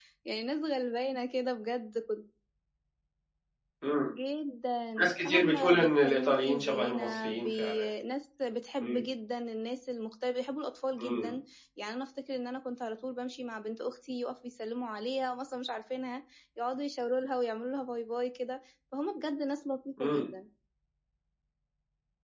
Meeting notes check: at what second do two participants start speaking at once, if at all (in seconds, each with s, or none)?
5.0 s